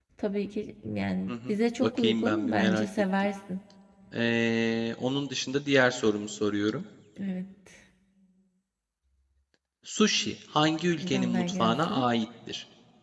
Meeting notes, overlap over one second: present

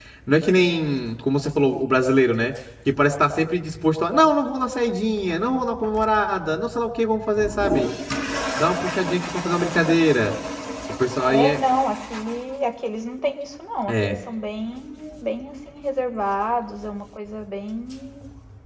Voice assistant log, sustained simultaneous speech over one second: none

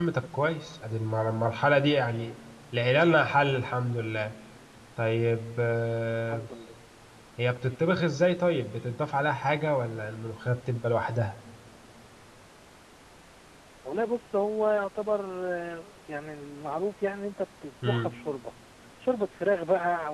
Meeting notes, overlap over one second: none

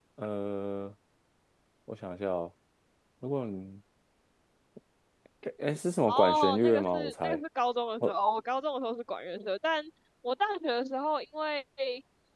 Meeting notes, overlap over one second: present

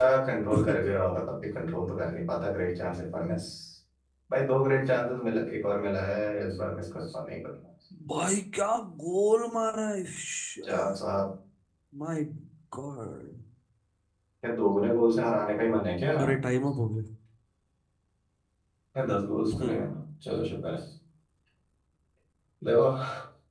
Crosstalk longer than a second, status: none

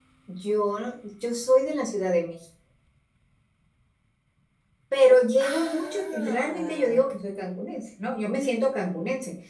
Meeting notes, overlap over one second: present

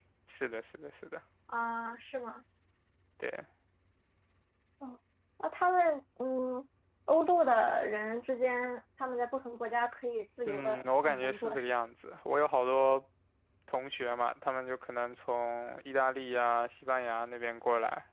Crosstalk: present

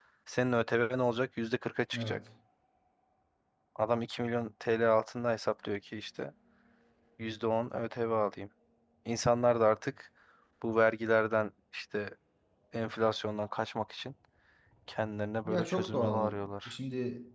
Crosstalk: present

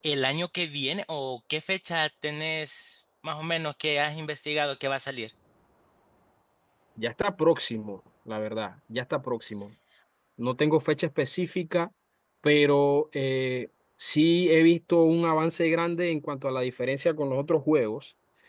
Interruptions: none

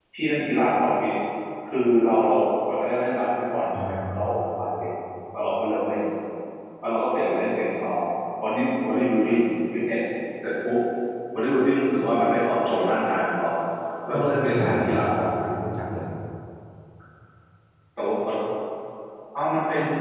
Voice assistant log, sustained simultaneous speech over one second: present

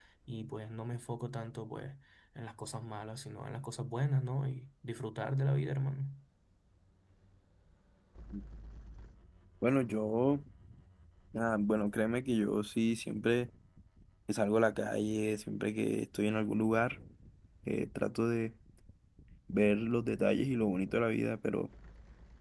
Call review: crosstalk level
none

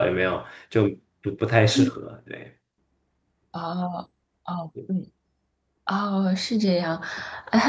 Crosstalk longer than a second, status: none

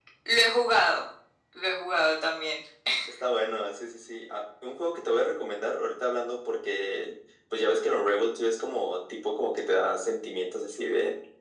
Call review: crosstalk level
none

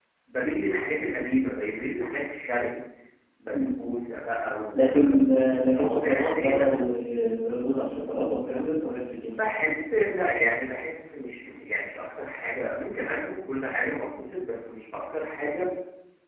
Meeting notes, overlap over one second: present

